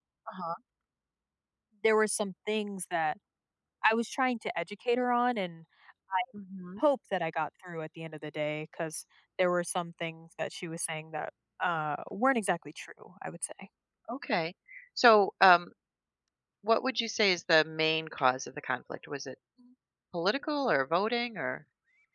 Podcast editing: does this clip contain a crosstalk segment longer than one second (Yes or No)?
No